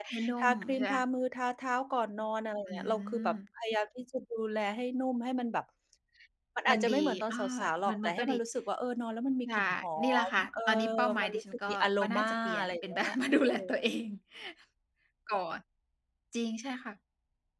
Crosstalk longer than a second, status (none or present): present